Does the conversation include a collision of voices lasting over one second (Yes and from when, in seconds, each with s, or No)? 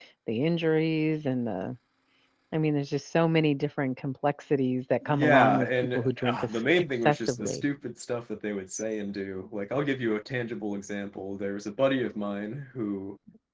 Yes, from 5.0 s